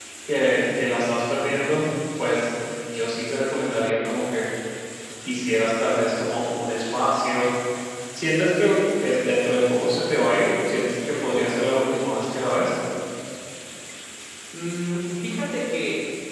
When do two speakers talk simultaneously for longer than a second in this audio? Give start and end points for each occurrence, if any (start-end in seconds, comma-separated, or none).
none